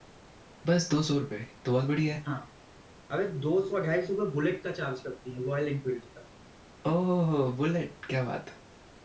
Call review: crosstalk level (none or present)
none